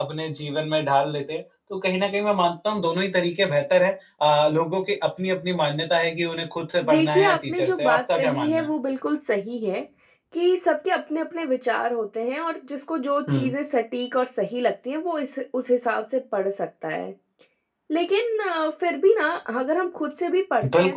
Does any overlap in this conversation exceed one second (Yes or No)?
Yes